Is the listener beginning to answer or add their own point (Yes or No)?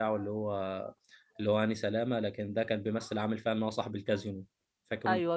Yes